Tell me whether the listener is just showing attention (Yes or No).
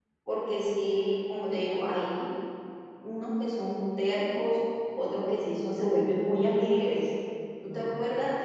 Yes